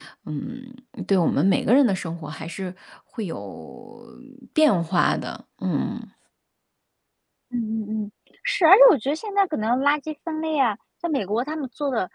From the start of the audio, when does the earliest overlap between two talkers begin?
none

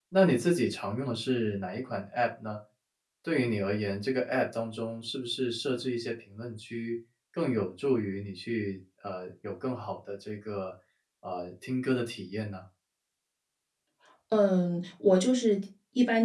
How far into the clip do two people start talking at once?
none

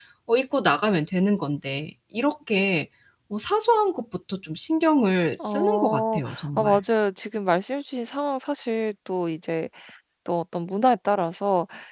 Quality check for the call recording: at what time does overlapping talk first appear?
5.3 s

